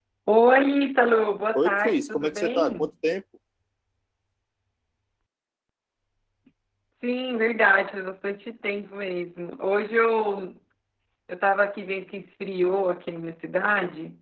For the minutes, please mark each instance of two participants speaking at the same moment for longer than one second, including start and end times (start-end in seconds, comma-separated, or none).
1.5-2.9